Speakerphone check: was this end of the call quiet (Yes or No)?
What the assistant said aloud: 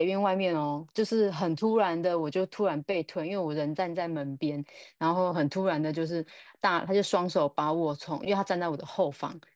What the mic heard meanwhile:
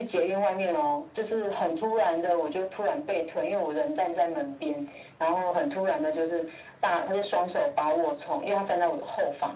Yes